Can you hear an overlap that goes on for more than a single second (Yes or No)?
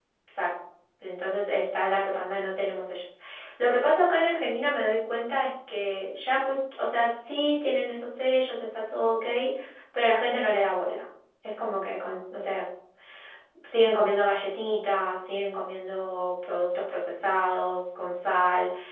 No